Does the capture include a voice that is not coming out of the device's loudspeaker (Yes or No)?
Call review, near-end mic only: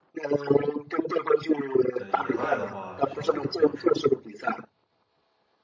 Yes